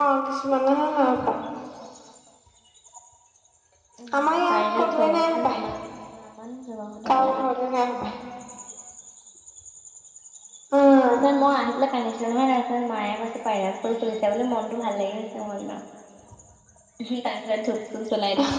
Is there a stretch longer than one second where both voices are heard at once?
Yes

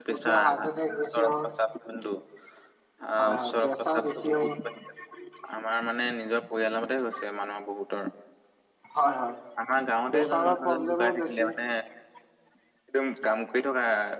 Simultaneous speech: Yes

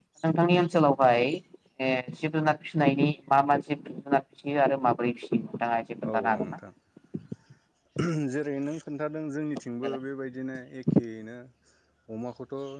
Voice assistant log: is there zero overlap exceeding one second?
Yes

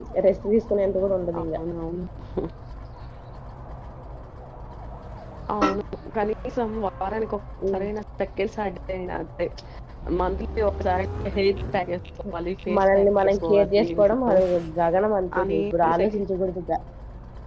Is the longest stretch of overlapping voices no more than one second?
No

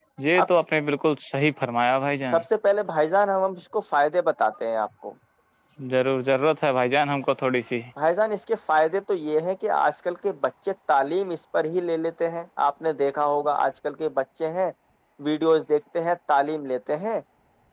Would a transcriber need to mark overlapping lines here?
No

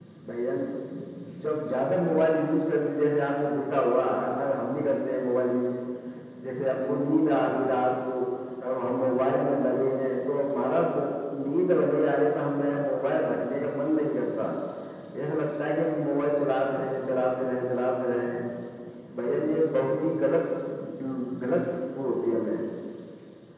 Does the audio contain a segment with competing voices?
No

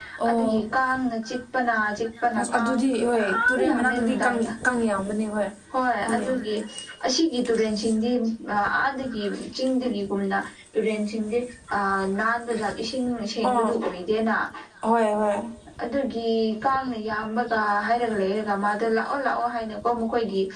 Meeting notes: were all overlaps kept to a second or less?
No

